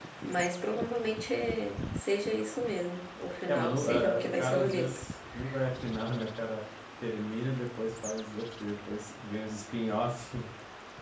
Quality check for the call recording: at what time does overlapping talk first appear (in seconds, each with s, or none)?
3.4 s